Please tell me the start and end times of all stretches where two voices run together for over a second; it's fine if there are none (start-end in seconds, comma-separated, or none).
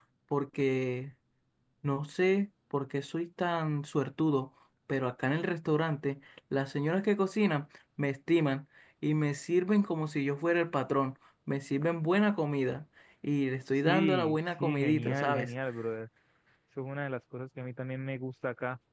13.8-15.5